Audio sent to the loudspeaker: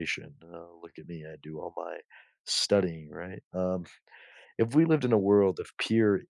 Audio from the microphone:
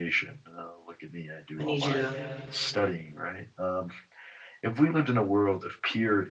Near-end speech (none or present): present